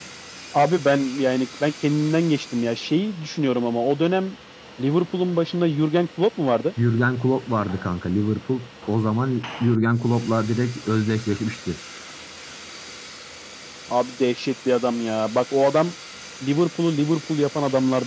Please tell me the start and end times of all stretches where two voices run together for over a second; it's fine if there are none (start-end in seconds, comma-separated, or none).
none